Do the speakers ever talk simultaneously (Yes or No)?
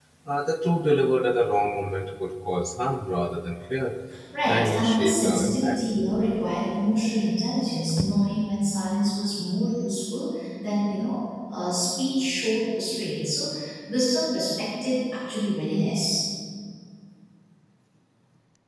Yes